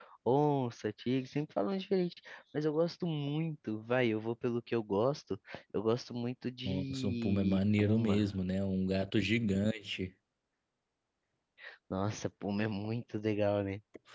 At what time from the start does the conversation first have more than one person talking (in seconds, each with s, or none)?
6.6 s